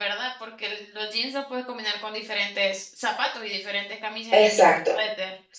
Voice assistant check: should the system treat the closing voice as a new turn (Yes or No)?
Yes